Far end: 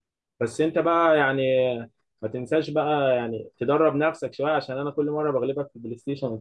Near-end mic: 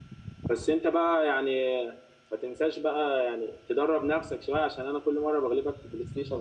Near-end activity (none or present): none